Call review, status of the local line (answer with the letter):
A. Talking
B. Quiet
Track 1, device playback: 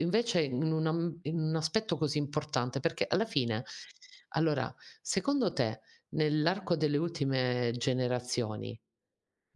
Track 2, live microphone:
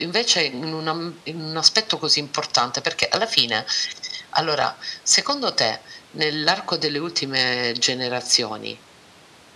B